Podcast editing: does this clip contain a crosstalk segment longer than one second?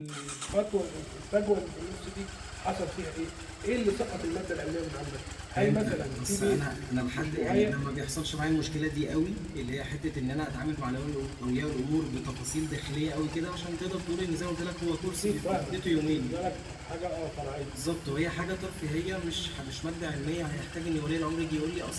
Yes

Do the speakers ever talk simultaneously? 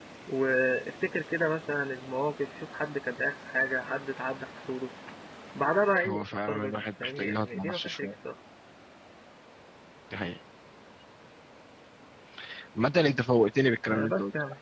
Yes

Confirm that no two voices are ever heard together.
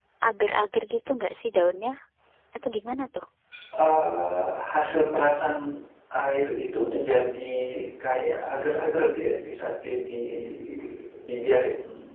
Yes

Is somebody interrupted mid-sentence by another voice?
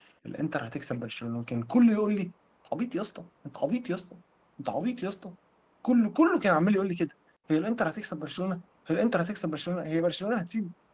No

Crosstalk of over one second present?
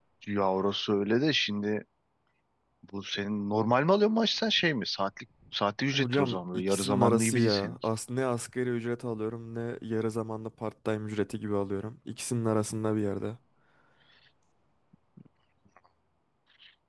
Yes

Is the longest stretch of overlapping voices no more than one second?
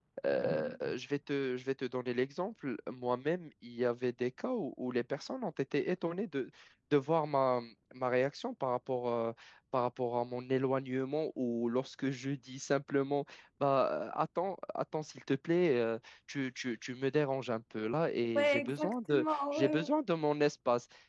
No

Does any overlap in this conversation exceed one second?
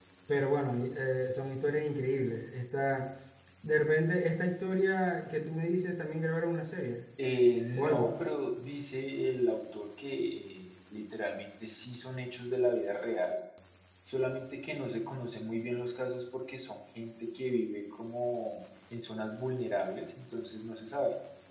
No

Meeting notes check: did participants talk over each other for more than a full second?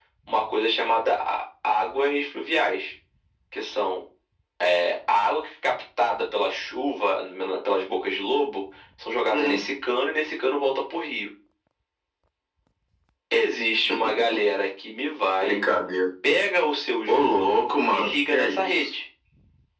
Yes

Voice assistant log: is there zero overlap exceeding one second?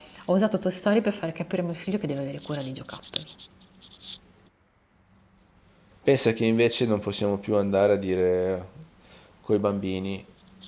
Yes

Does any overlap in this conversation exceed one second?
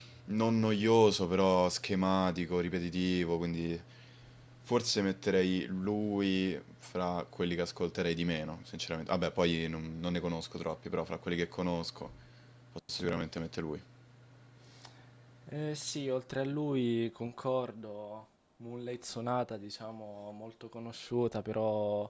No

